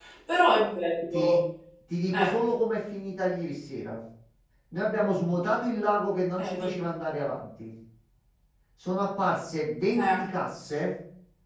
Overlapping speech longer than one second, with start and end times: none

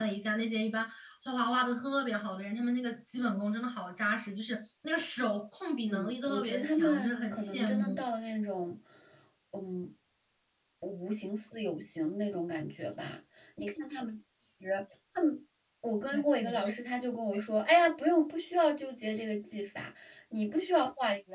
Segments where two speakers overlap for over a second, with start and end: 5.9-8.0

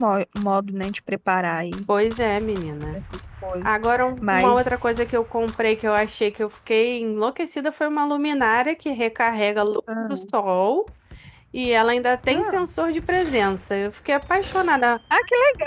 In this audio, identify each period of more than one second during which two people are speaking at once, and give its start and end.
none

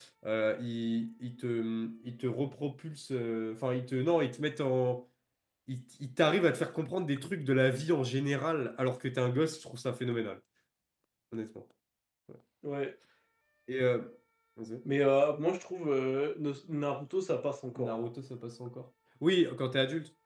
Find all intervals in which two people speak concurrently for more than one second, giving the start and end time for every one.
none

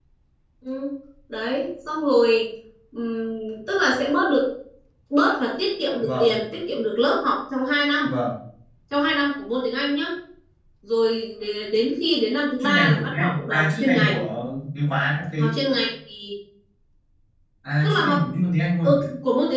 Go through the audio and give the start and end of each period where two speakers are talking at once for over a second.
12.6-14.2

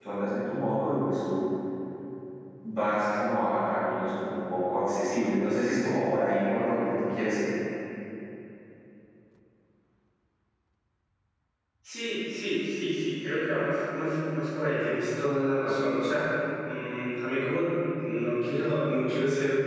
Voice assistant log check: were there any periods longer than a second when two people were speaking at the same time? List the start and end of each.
none

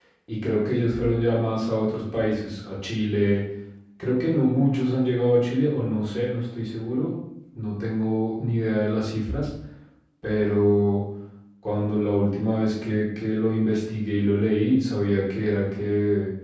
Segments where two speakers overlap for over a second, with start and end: none

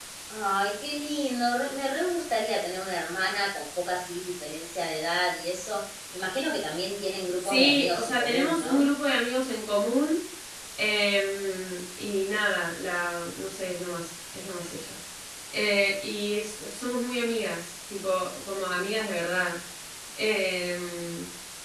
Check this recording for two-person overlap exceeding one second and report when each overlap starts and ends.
7.4-8.8

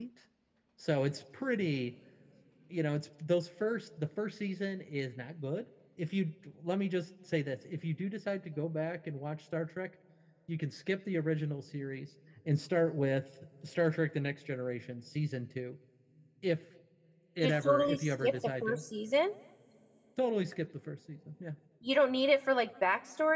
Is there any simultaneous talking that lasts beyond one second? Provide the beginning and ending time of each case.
17.4-18.8

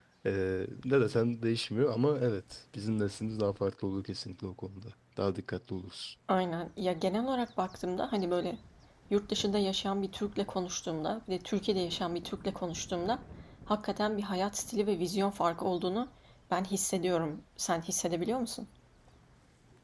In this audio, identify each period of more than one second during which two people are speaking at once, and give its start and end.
none

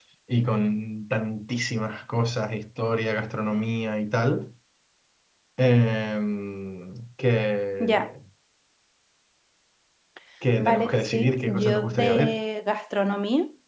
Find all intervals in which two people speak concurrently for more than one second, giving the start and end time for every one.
10.6-12.4

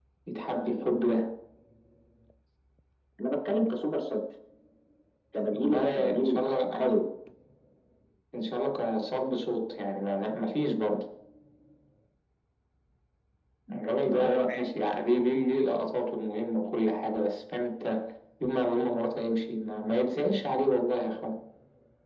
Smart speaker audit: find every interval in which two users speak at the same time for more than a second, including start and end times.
5.5-7.0

